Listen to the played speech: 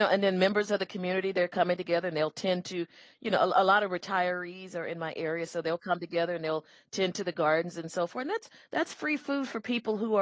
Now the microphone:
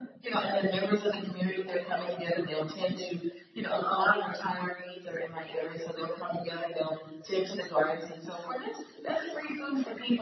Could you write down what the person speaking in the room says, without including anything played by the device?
none

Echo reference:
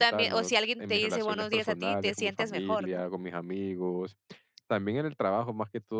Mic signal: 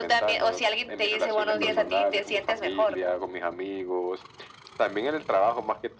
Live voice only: Sí.

